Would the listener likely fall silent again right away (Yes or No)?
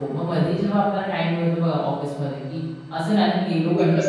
Yes